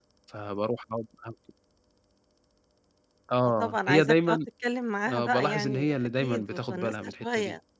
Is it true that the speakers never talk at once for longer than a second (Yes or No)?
No